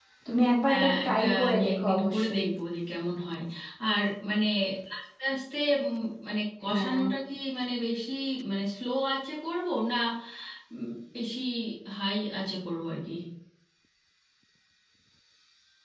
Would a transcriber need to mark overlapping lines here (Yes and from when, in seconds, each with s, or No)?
Yes, from 0.7 s